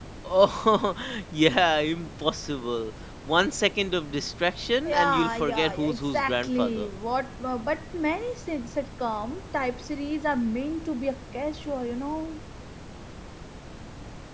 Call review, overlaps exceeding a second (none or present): present